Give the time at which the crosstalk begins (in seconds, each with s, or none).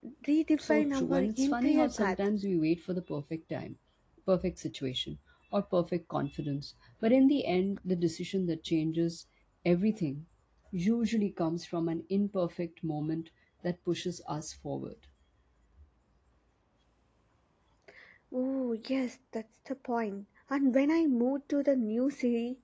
0.6 s